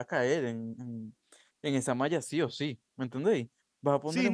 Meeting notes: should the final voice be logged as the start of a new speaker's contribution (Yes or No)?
Yes